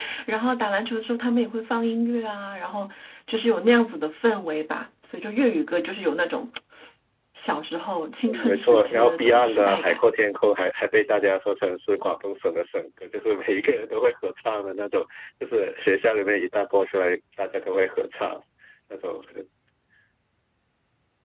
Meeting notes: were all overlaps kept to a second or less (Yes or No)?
No